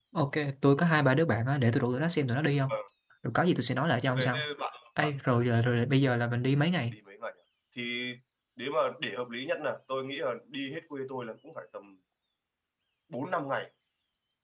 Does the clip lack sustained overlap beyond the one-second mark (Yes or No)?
Yes